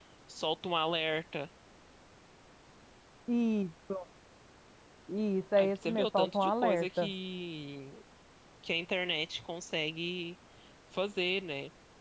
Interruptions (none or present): present